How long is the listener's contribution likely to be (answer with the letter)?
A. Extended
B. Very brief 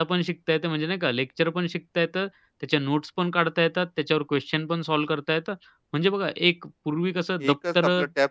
A